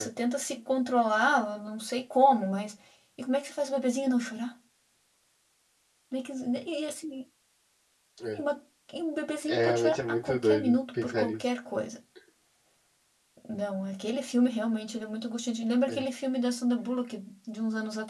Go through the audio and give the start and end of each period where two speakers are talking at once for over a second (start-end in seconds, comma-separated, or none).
9.5-11.4